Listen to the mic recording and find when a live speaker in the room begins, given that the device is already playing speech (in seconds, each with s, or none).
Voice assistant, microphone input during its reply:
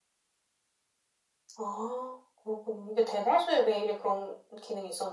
none